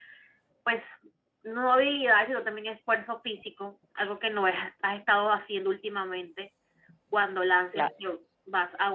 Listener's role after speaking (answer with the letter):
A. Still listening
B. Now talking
A